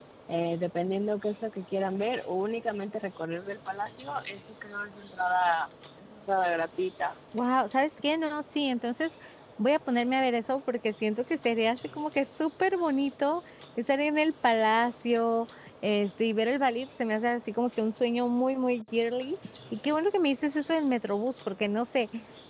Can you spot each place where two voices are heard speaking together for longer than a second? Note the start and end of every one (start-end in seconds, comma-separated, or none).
none